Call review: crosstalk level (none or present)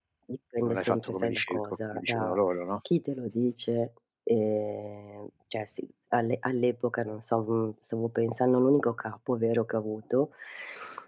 present